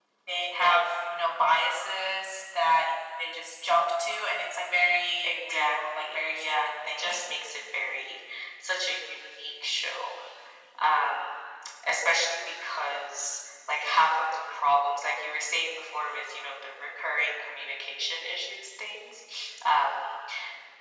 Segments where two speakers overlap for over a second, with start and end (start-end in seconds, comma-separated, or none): 5.2-7.2